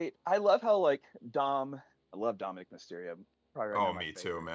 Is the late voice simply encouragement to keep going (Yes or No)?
No